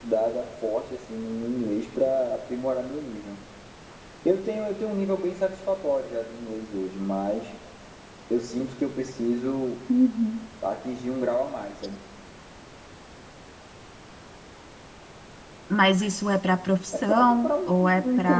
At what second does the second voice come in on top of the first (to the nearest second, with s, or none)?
17 s